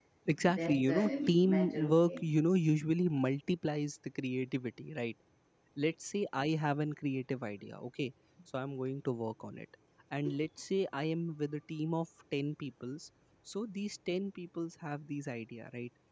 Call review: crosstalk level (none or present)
present